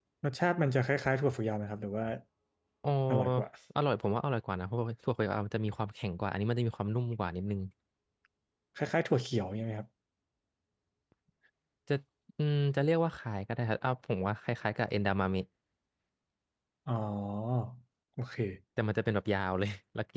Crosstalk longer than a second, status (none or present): none